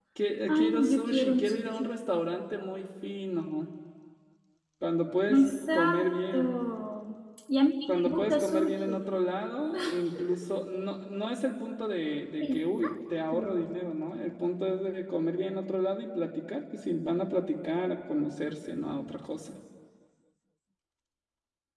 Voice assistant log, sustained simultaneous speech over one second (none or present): present